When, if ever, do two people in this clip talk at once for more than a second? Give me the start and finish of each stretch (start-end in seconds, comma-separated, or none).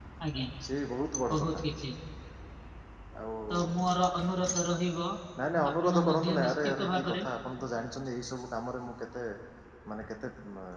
5.8-7.2